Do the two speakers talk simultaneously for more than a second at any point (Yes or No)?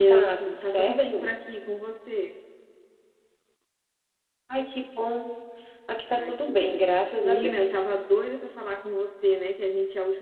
Yes